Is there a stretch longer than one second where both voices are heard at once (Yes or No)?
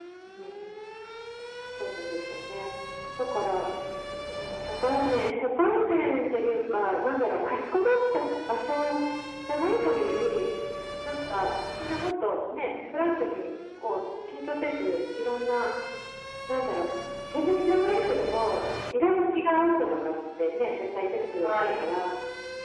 No